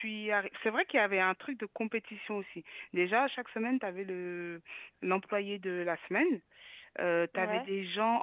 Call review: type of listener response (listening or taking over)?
listening